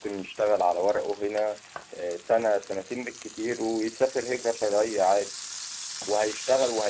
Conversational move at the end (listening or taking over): listening